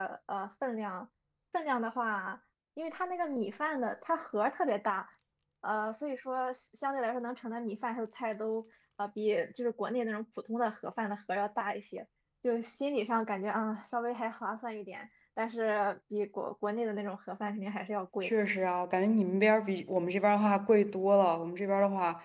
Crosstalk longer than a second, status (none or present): none